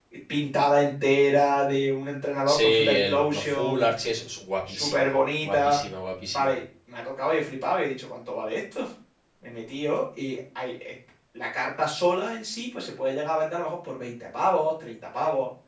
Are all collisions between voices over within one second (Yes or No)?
No